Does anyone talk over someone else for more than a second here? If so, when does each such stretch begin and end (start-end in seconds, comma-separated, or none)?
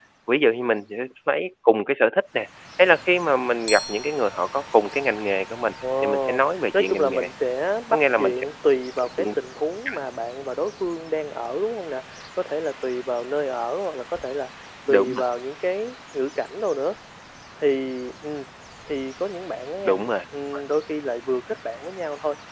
6.0-7.3